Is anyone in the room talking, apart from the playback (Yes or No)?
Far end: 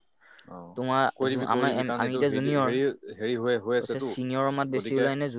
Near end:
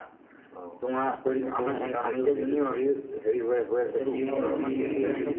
Yes